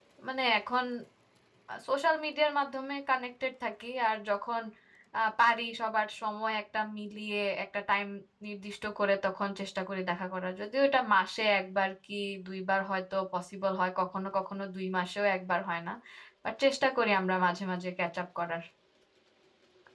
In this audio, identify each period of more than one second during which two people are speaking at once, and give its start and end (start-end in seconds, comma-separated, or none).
none